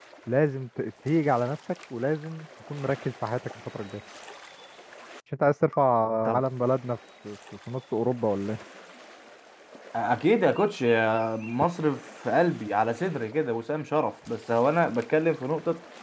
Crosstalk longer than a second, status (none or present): none